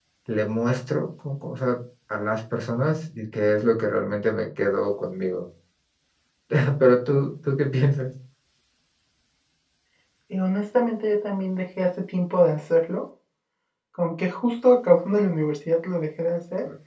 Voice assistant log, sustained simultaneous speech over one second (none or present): none